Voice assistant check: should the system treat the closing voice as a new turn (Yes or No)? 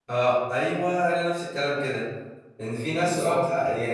No